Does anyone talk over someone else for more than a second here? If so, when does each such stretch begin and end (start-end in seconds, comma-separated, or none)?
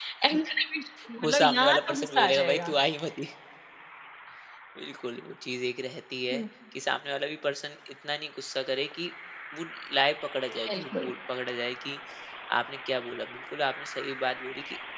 1.2-2.7